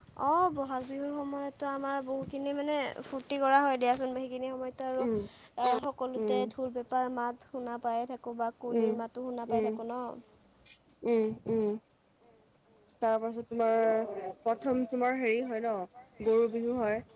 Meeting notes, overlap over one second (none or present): none